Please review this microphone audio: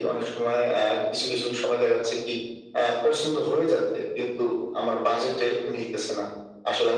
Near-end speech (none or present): none